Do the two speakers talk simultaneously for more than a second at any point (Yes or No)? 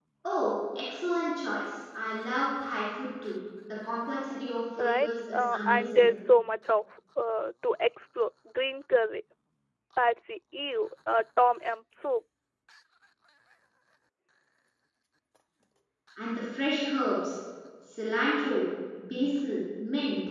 Yes